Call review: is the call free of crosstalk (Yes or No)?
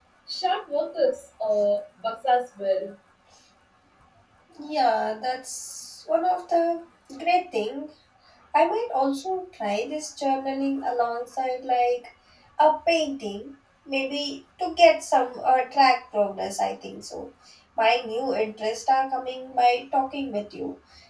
Yes